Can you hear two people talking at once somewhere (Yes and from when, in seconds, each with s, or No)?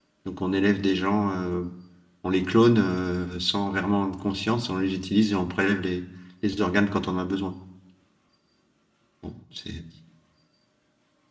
No